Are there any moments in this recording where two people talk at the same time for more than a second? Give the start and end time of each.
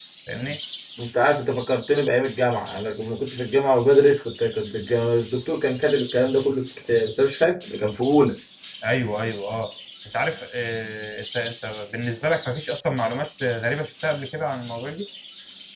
none

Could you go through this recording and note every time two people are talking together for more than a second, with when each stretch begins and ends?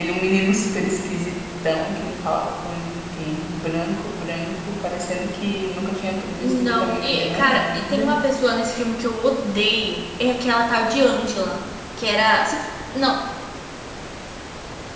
6.4-8.1

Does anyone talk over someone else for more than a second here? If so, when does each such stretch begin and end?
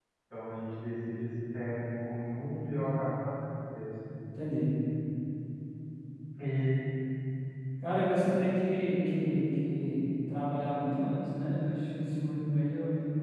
none

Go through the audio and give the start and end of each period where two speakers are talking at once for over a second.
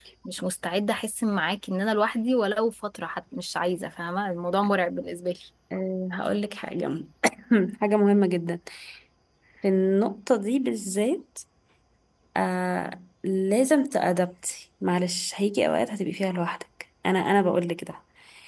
none

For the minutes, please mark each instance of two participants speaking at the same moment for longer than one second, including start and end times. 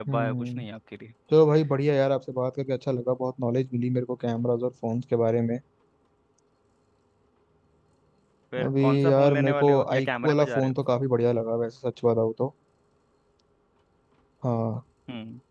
8.6-10.8

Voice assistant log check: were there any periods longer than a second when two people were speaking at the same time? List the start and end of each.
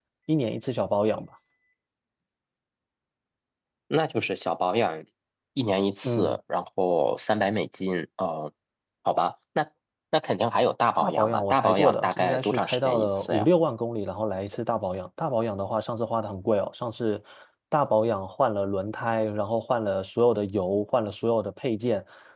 11.0-13.5

